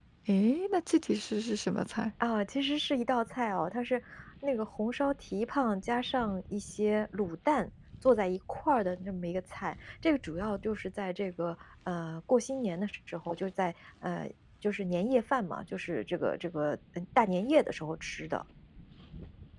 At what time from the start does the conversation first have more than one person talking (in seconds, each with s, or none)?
none